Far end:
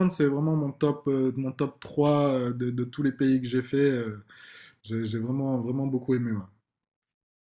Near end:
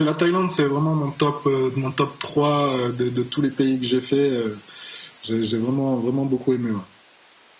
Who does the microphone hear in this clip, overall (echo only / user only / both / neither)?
echo only